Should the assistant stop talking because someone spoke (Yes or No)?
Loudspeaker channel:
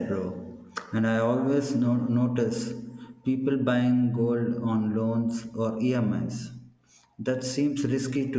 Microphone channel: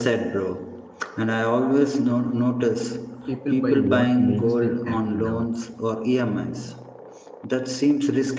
Yes